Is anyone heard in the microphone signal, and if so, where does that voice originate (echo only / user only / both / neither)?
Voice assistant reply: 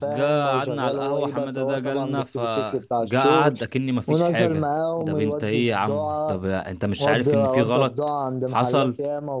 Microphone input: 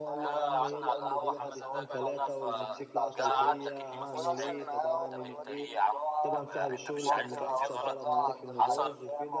both